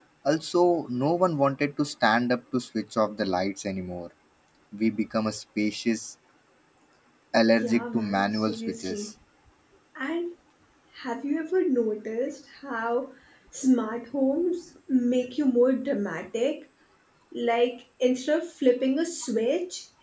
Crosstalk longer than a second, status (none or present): present